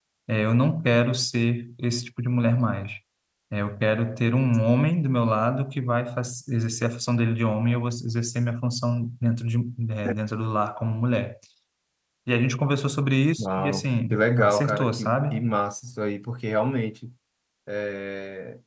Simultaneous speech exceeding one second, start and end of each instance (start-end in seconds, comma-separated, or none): 13.4-15.2